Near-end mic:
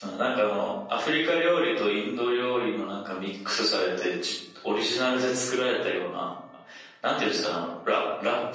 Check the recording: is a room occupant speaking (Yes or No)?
Yes